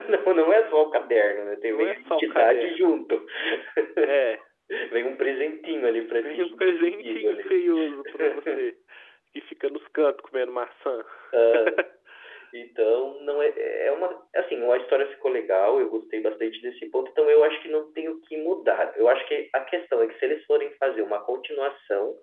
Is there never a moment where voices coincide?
No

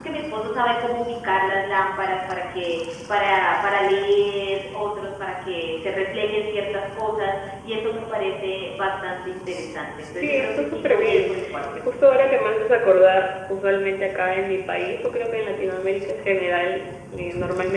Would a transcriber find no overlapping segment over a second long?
No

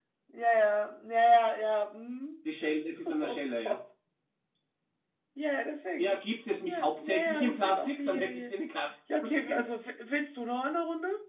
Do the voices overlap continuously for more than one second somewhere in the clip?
Yes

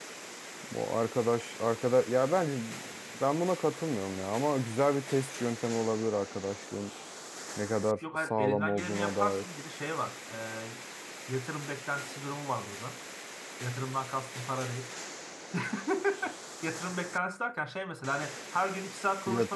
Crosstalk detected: Yes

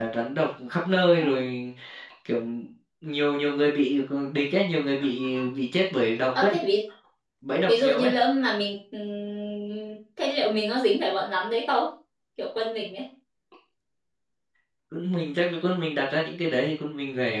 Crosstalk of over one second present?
No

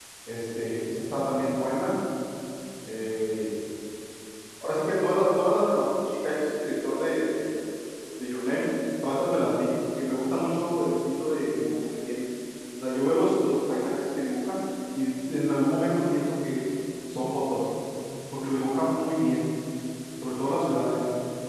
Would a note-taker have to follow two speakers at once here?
No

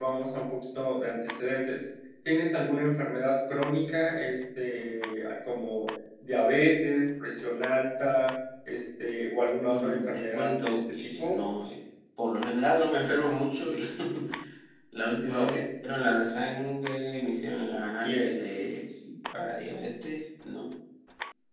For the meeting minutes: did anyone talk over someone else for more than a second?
Yes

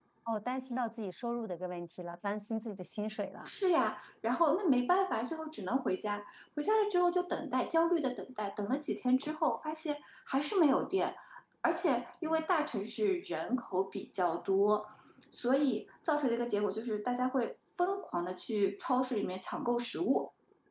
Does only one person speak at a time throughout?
Yes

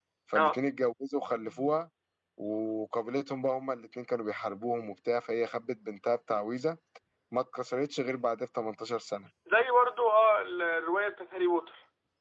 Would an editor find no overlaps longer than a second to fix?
Yes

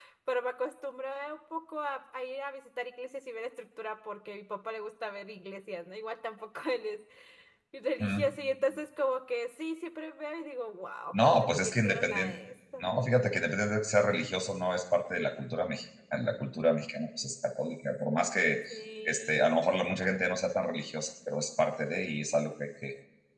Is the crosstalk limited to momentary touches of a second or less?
No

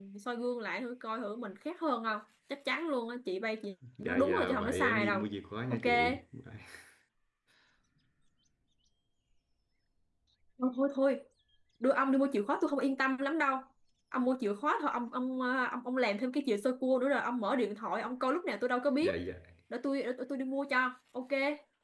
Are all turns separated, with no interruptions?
No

